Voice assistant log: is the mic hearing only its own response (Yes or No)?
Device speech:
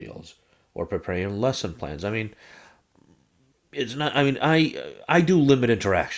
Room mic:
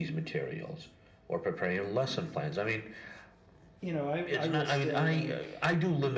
No